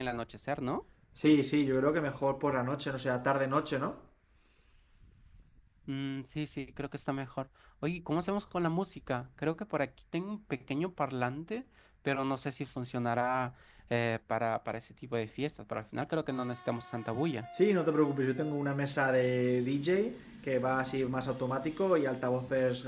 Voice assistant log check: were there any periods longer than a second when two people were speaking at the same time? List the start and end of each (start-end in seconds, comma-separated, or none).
none